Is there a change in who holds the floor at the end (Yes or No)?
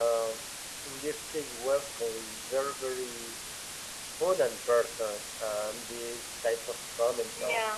No